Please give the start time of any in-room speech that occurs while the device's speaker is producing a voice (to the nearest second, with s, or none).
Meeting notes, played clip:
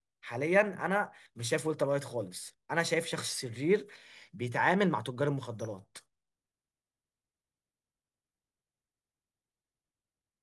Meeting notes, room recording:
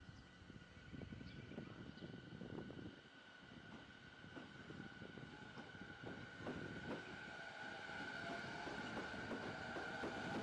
none